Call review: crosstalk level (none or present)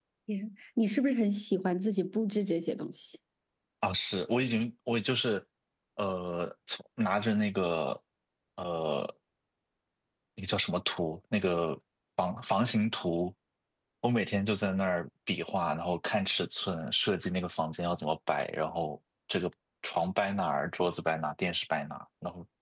none